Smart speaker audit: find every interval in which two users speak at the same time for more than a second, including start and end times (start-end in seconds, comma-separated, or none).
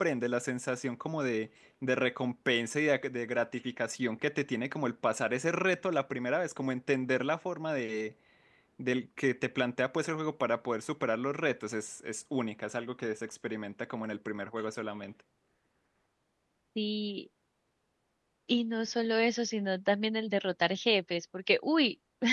none